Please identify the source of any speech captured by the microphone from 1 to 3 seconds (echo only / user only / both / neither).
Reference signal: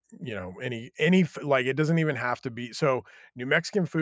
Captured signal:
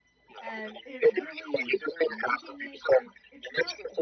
both